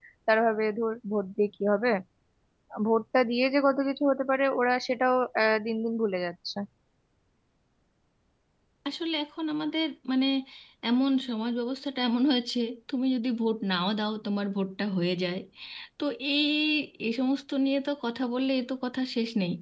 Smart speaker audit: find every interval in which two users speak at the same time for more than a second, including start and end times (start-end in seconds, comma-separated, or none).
none